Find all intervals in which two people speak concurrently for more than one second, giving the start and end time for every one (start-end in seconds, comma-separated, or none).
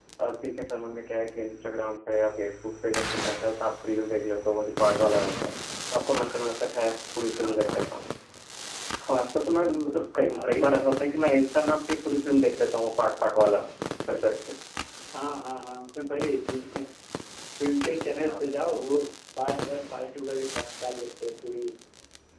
none